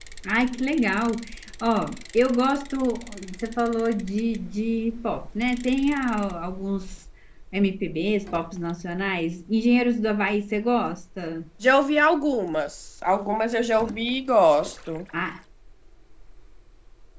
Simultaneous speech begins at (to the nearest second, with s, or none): none